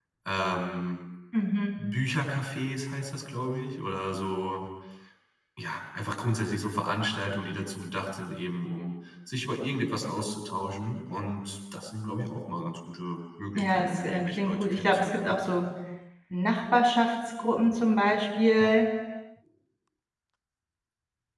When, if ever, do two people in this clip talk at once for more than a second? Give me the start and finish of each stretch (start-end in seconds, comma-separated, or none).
13.6-15.4